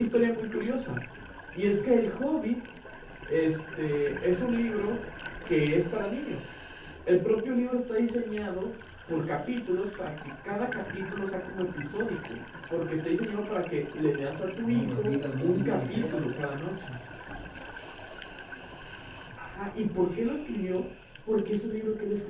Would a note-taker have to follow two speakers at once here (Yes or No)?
Yes